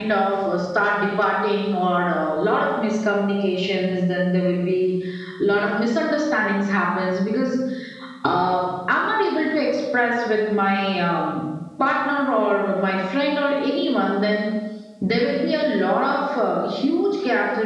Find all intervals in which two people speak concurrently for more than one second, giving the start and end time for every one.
none

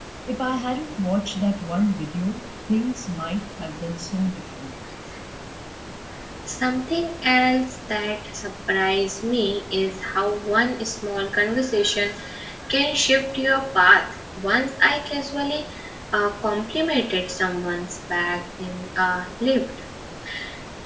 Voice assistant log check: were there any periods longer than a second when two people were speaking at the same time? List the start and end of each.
none

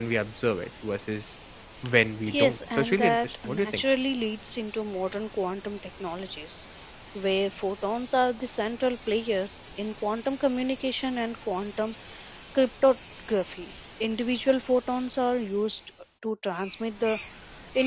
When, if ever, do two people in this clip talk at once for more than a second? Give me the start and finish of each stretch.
2.3-3.8

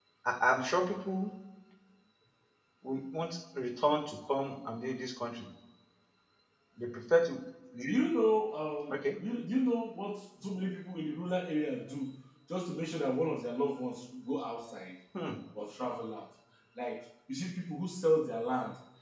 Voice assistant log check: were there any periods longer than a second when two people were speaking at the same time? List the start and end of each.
none

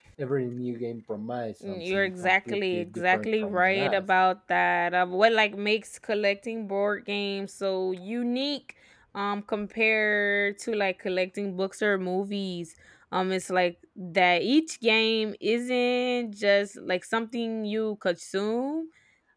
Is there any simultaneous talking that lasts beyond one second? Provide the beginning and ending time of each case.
1.7-4.0

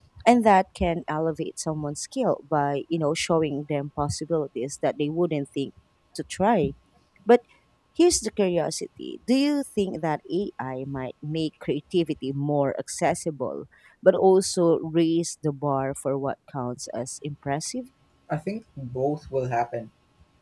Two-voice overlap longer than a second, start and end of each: none

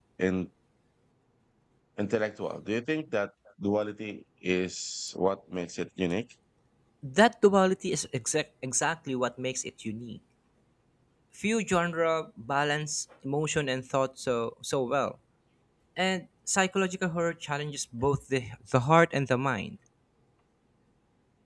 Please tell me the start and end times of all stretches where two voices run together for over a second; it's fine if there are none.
none

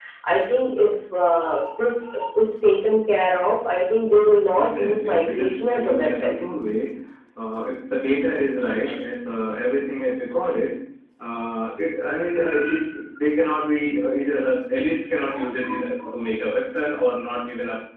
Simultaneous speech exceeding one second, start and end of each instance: 4.5-6.4

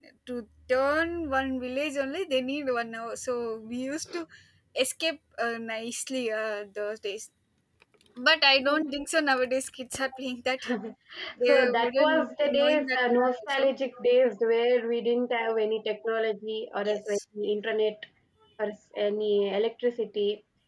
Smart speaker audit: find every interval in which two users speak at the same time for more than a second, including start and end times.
11.5-13.6

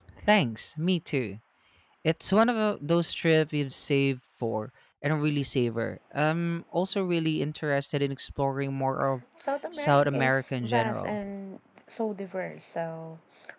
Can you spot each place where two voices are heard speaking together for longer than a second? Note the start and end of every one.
9.7-11.2

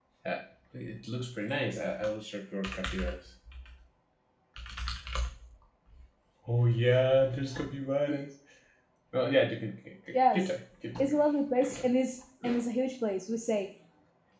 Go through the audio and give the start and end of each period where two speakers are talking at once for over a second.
none

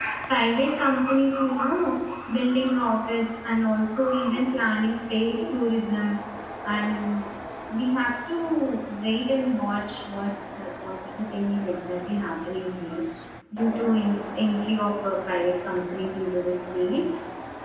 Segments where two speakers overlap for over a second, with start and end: none

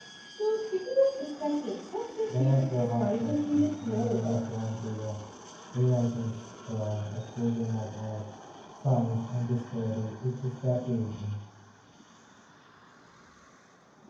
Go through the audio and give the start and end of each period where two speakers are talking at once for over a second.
2.4-4.4

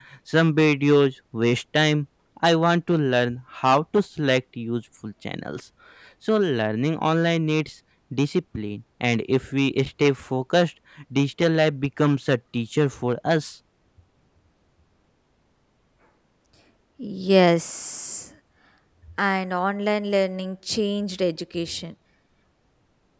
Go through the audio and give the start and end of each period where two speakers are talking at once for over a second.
none

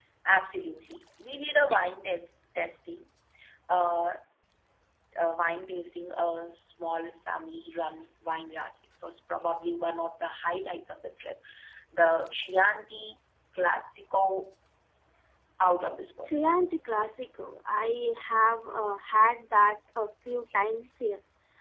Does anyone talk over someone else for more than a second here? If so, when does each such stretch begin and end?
none

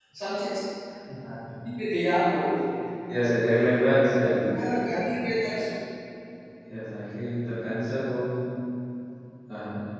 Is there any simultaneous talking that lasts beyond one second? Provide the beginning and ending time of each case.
none

